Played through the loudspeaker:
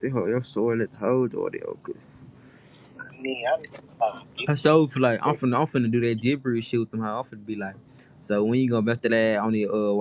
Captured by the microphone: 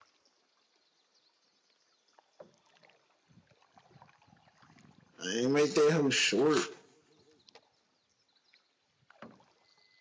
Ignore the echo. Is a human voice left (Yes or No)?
Yes